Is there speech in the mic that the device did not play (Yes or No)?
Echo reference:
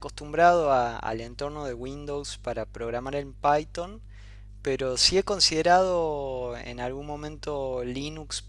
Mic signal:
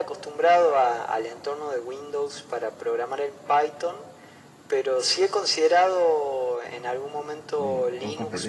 Yes